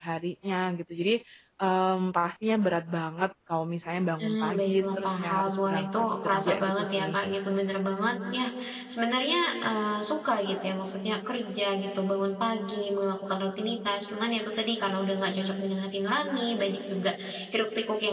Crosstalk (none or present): present